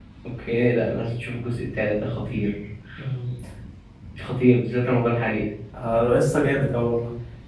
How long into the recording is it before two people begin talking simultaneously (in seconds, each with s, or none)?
none